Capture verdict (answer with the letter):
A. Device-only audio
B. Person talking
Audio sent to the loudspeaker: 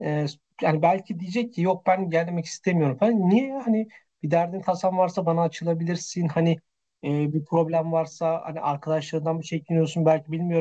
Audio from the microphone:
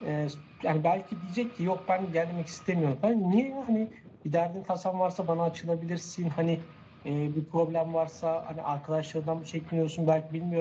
A